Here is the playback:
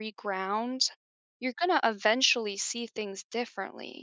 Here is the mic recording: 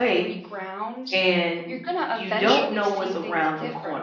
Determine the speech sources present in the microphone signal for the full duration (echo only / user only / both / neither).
both